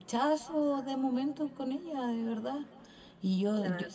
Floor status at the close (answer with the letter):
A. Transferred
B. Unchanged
B